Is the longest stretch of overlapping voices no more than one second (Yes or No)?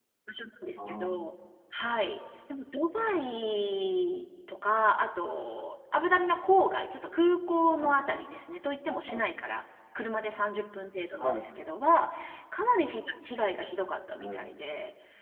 Yes